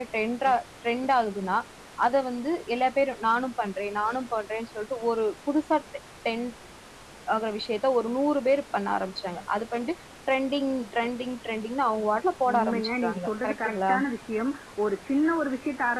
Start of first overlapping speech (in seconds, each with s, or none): 12.5 s